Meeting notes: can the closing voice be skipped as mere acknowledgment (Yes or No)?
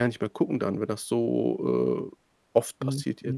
No